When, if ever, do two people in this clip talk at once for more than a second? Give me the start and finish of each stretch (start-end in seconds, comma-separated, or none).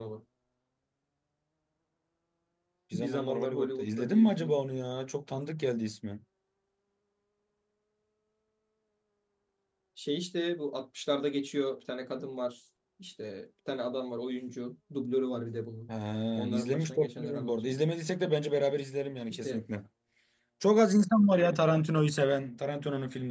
2.9-4.6, 16.4-17.8